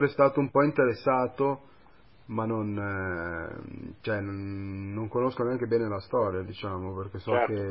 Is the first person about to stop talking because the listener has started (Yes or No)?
Yes